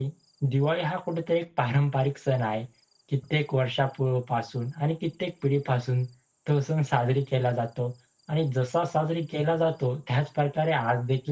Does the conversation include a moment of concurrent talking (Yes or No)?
No